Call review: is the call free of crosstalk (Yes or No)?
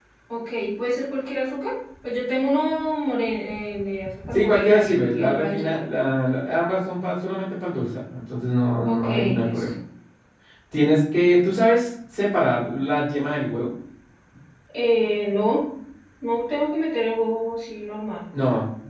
No